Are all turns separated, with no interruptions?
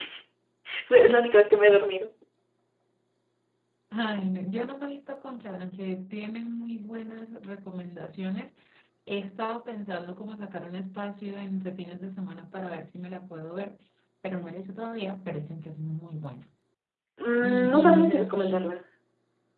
No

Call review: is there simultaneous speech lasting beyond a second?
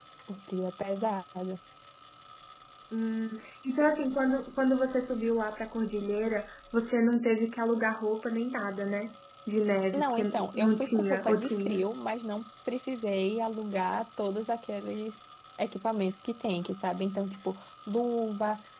Yes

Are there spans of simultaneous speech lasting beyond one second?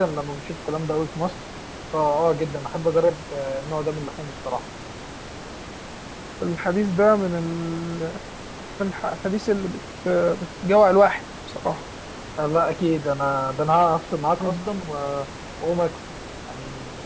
No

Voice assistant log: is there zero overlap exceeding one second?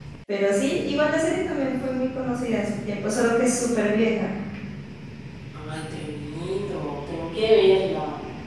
Yes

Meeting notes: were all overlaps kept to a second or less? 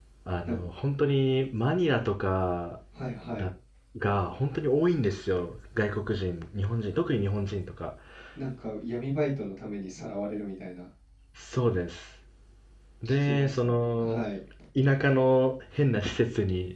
No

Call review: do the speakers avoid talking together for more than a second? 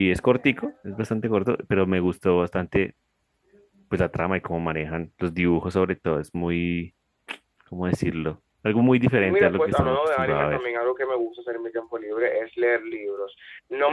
No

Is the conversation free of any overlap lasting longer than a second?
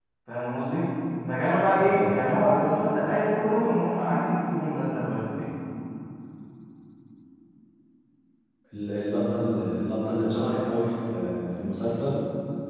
Yes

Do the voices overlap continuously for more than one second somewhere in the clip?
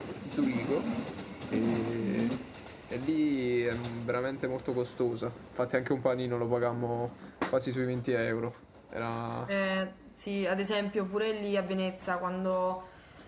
No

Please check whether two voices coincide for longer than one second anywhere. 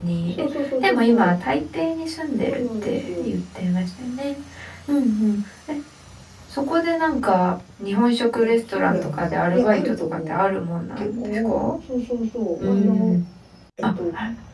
Yes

